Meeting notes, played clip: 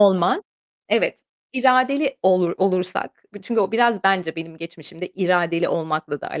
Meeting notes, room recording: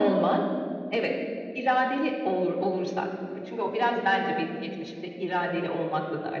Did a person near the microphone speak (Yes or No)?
No